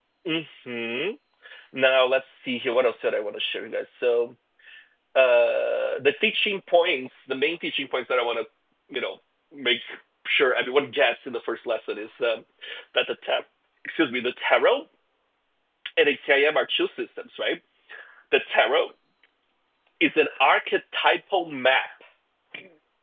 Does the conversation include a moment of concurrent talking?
No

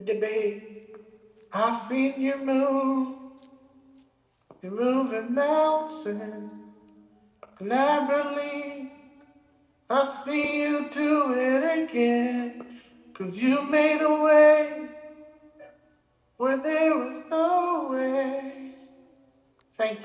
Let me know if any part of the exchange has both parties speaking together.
No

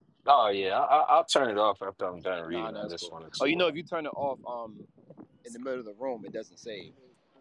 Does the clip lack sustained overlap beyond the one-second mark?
No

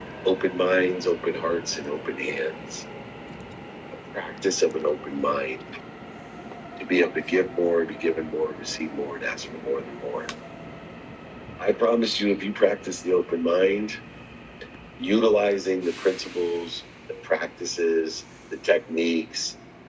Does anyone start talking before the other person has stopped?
No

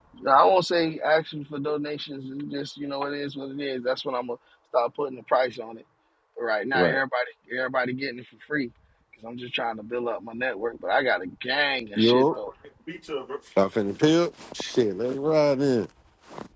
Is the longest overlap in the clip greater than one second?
No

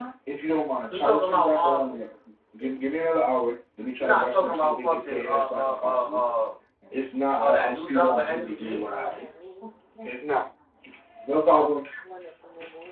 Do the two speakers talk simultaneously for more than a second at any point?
Yes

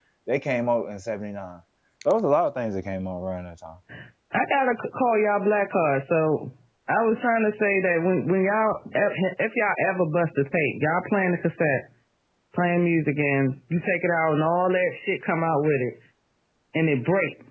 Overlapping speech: No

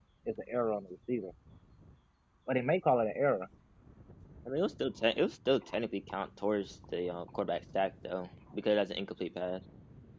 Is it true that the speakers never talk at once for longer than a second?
Yes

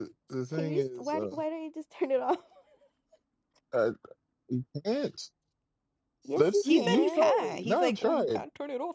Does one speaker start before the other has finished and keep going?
Yes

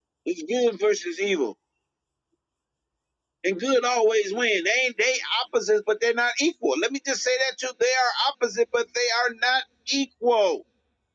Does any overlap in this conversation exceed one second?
No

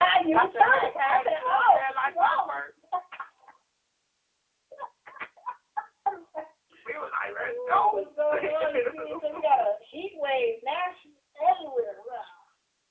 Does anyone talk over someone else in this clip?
Yes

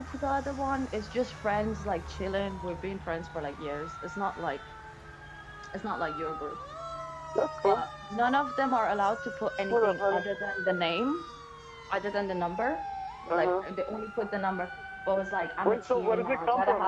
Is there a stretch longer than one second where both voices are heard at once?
Yes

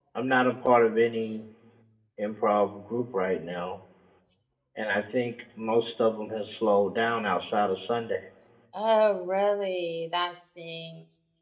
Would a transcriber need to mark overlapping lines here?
No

